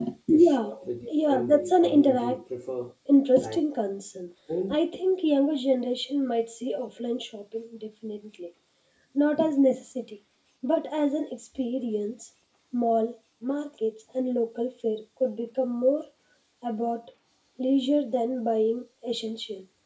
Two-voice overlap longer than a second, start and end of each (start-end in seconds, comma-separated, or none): 1.1-2.4